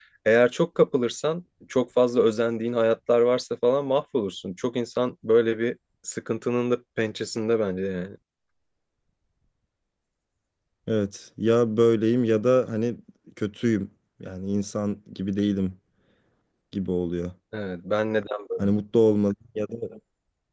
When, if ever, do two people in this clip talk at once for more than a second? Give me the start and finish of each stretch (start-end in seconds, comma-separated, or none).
none